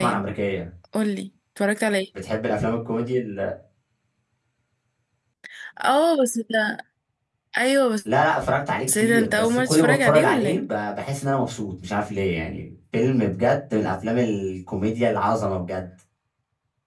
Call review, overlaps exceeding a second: present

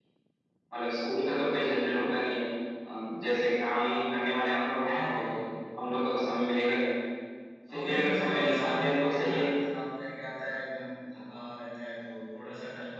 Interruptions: present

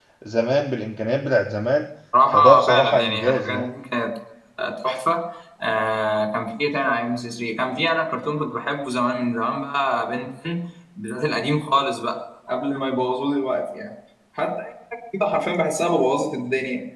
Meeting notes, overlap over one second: present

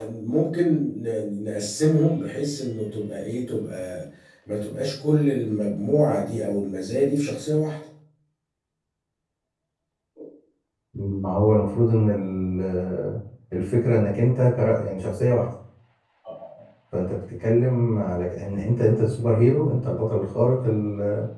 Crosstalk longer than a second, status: none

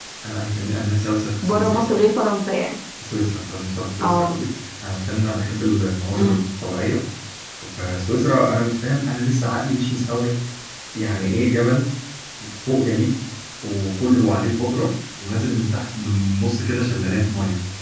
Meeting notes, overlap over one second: none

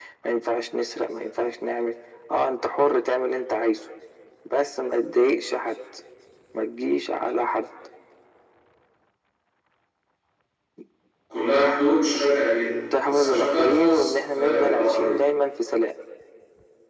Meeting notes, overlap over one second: present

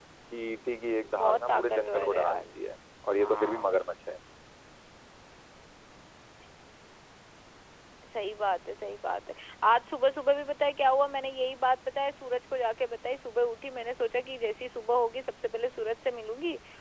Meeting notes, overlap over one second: present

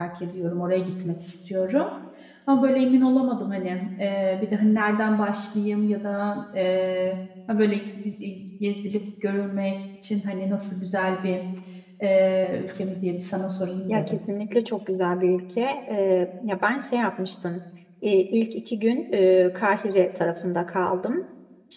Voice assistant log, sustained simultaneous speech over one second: none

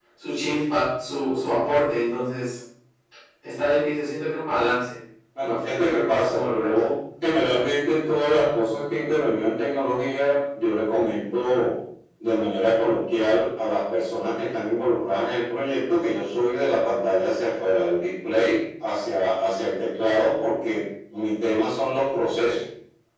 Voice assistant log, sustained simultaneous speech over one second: present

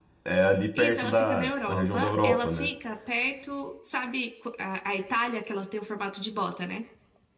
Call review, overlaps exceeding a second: present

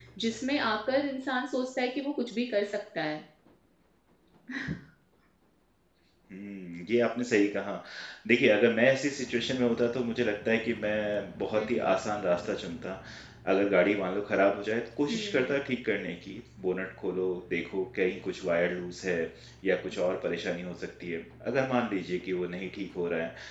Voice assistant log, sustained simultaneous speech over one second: none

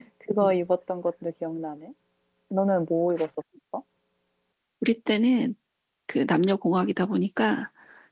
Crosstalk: none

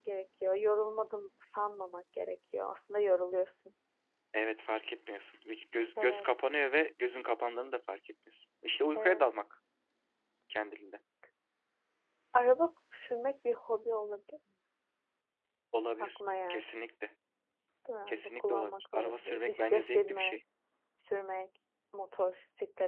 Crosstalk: present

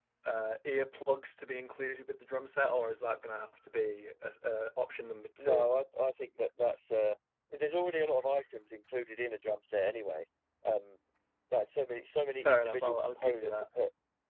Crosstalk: present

